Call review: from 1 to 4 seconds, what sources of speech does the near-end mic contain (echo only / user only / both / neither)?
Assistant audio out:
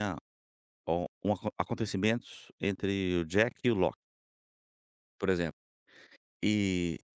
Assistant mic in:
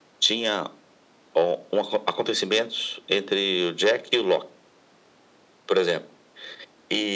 echo only